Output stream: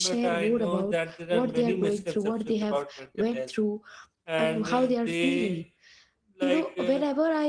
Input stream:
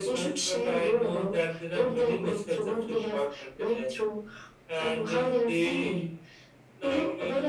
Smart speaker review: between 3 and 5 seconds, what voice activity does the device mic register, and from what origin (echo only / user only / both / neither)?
echo only